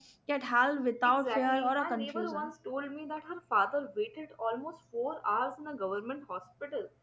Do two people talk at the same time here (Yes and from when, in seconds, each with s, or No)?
Yes, from 1.1 s